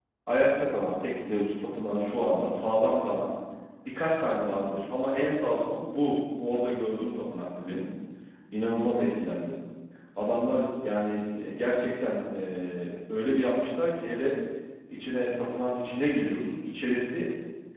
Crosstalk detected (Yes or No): No